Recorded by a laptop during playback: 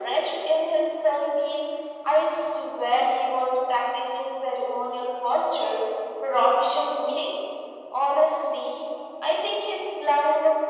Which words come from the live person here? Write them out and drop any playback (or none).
none